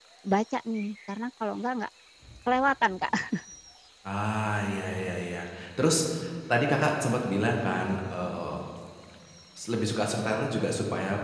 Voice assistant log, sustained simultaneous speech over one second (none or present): none